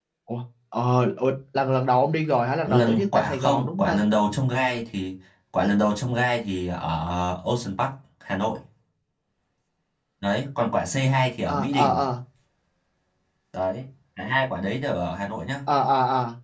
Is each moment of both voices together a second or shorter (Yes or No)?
No